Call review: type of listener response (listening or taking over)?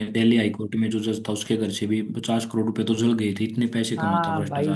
taking over